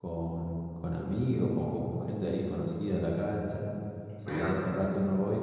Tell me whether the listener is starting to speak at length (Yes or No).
No